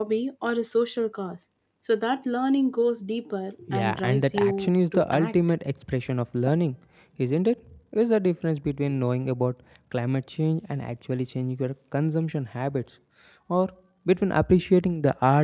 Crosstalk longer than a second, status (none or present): present